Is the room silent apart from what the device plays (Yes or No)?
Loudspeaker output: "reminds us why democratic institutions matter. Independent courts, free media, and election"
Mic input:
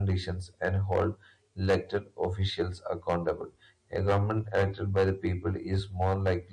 No